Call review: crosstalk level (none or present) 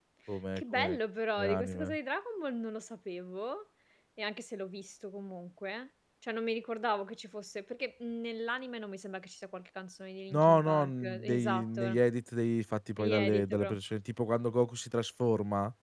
present